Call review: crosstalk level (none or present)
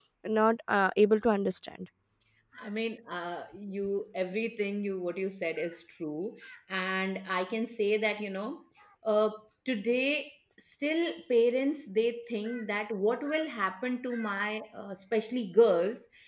none